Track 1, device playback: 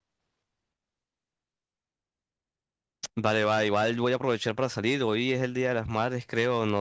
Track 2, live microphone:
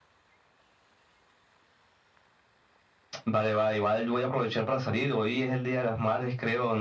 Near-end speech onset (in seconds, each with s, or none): none